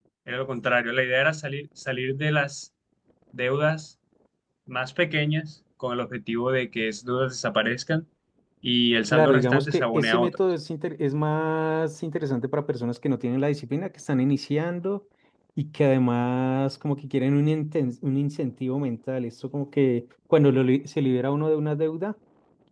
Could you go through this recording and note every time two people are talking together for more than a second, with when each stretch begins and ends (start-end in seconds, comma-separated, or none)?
9.1-10.3